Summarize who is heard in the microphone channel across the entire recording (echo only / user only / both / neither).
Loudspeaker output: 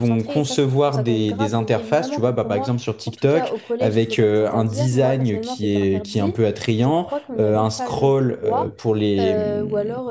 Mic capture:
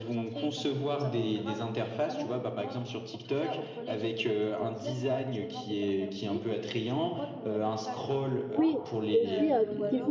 both